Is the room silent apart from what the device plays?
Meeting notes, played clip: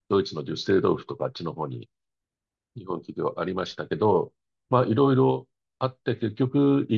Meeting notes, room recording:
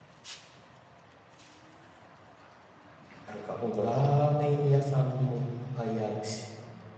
No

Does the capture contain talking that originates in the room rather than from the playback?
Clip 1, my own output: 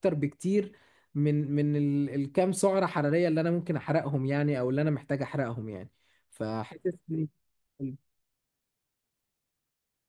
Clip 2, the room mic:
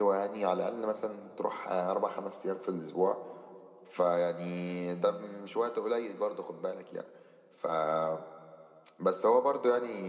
Yes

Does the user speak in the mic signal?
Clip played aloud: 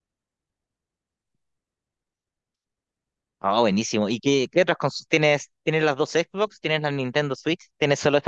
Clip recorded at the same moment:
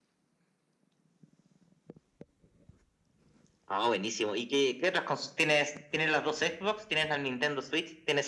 No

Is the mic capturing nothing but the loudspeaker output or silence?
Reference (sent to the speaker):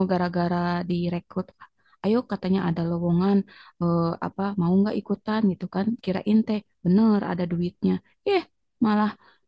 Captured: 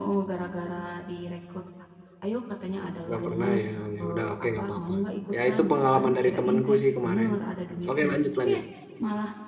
No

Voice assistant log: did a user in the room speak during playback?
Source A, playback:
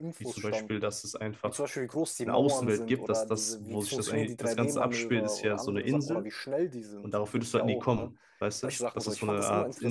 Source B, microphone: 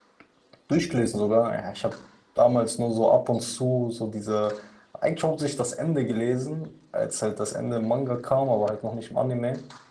Yes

